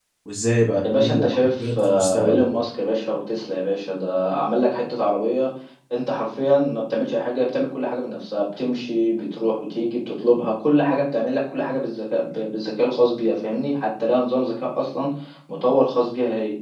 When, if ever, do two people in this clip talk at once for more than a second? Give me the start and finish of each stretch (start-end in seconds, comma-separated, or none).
1.0-2.4